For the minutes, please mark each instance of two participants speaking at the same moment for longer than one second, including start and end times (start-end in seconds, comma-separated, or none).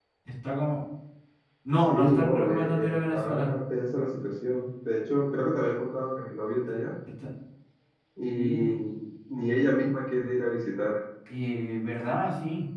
1.9-3.5